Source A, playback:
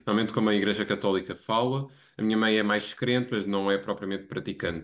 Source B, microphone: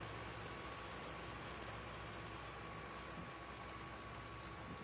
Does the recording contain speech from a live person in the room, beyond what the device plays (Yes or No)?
No